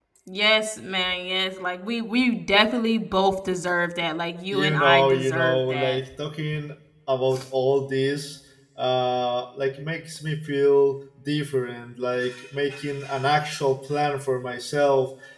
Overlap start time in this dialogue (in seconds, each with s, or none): 4.5 s